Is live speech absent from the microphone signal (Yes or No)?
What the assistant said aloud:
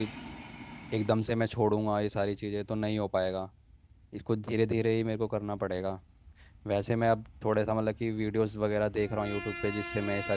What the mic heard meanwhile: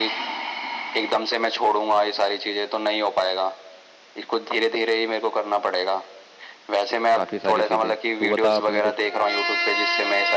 No